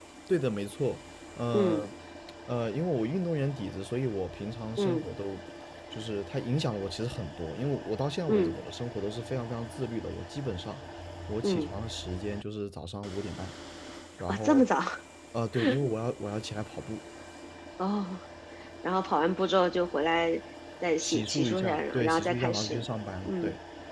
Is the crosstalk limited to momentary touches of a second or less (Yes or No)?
No